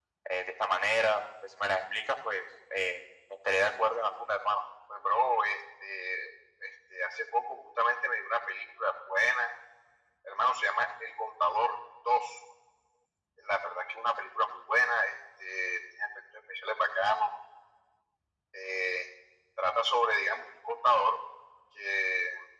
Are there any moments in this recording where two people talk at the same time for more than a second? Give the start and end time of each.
none

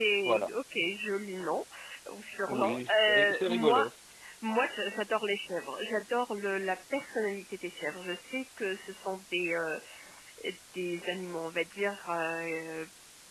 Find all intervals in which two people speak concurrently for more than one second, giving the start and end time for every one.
2.5-3.9

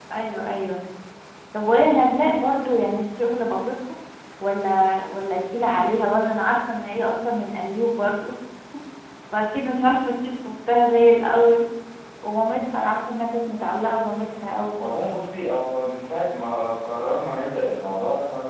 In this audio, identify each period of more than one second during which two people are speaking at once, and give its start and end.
none

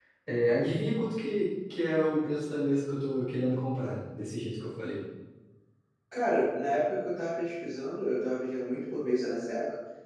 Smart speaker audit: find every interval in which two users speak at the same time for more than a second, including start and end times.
none

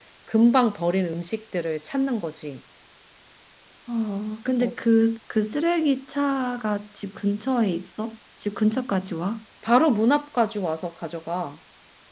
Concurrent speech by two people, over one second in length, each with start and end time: none

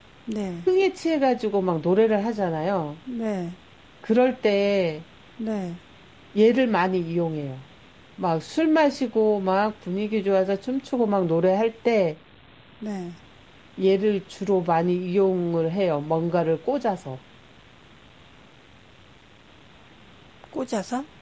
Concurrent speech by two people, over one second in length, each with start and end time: none

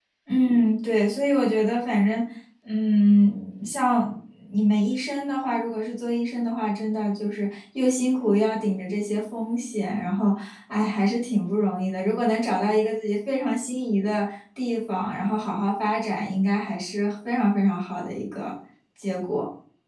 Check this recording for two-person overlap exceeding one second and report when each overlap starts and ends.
none

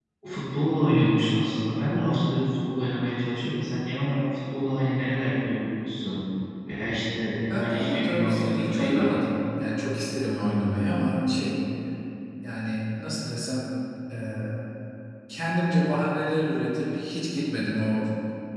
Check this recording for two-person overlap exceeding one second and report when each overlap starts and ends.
7.5-9.3

